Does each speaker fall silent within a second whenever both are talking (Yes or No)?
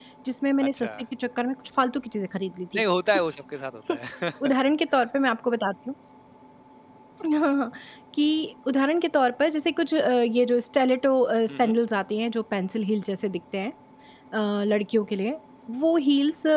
Yes